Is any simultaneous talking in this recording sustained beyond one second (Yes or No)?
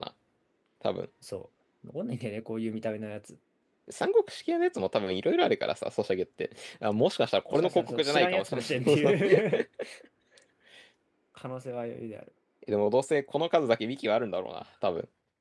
Yes